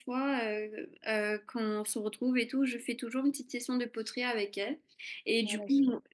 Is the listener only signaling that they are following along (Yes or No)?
Yes